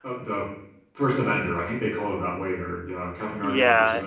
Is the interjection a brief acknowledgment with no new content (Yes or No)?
No